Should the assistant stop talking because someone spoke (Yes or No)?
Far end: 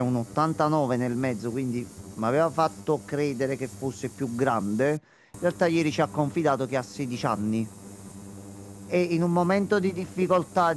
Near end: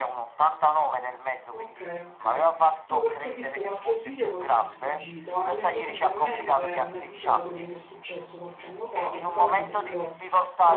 Yes